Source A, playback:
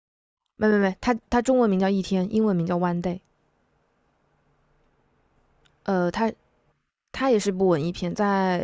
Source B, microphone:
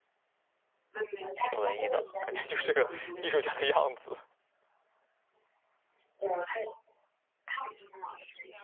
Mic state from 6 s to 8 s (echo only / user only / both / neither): echo only